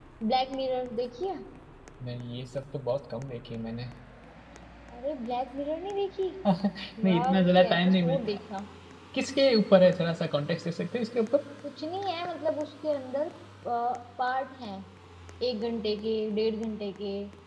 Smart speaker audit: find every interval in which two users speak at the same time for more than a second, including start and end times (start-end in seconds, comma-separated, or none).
7.0-8.4